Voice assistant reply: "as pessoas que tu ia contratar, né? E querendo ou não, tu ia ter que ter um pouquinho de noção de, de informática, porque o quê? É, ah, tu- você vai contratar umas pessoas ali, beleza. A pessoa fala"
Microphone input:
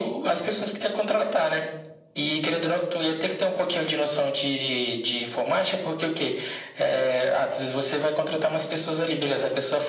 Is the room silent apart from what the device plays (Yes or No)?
Yes